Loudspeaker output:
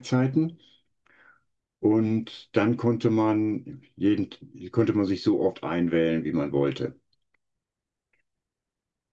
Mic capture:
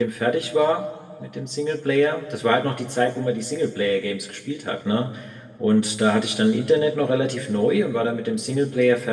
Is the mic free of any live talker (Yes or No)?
No